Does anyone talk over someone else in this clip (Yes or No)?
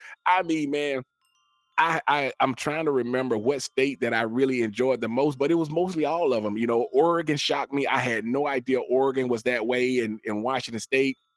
No